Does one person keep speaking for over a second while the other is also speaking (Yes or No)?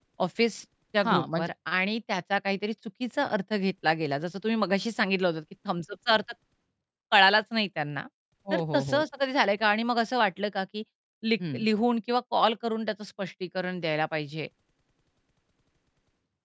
No